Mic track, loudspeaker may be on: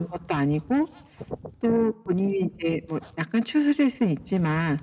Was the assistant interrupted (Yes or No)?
No